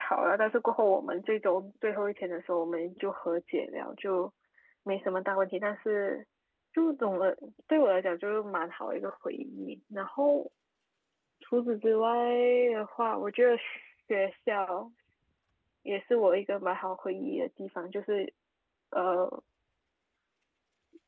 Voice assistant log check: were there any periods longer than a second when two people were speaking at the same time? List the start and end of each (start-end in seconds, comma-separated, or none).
none